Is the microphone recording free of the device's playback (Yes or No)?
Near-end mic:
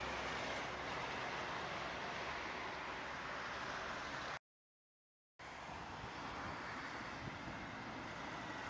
Yes